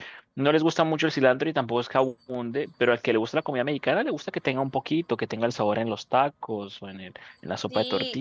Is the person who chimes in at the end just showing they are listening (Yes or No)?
No